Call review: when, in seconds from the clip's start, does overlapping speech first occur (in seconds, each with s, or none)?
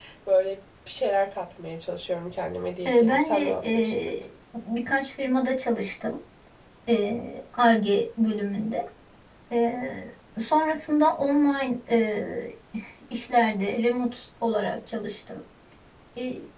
2.9 s